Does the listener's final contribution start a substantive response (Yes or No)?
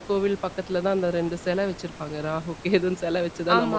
Yes